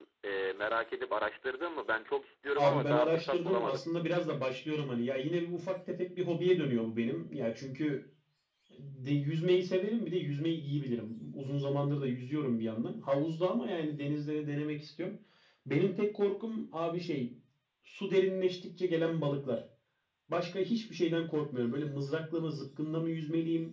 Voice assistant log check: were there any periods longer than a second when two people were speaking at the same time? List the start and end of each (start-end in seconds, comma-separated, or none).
2.6-3.9